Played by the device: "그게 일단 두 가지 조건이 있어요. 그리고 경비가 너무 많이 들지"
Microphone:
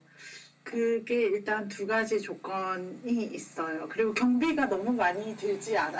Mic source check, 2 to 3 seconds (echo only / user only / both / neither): echo only